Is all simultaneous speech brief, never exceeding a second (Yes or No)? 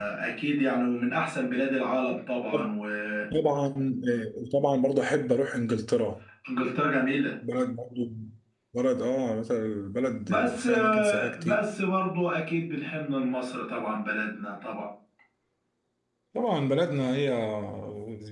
No